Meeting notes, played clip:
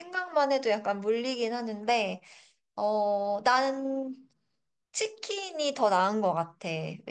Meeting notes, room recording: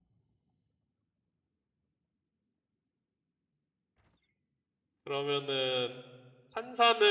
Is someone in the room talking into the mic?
Yes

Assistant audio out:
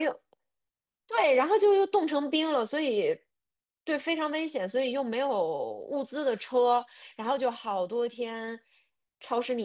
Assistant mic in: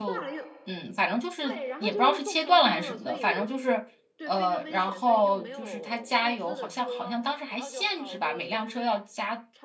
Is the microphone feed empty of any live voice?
No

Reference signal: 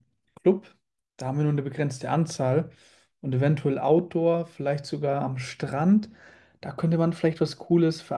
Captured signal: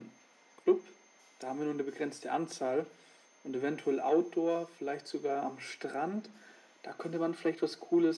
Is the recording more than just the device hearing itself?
No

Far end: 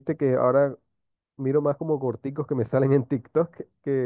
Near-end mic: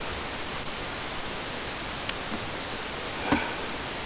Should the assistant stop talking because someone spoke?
No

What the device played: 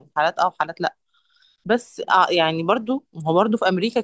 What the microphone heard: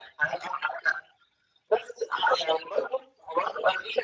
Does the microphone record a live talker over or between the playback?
No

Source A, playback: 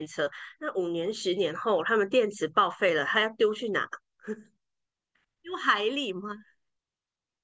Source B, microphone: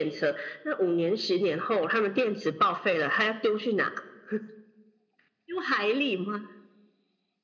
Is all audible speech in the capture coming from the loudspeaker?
Yes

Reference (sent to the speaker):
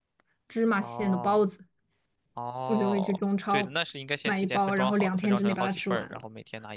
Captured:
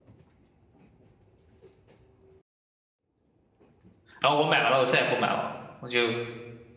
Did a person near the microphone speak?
Yes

